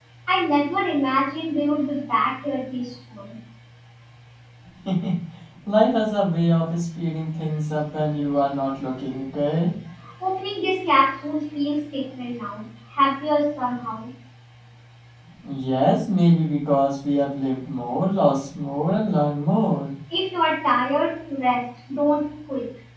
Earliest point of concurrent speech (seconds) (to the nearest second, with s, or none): none